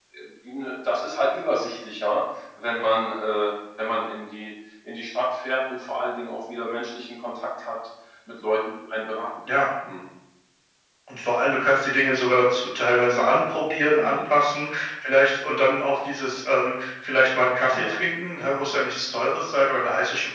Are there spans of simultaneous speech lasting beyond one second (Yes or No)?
No